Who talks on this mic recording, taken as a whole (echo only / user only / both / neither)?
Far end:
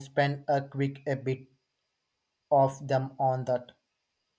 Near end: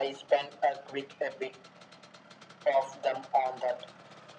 echo only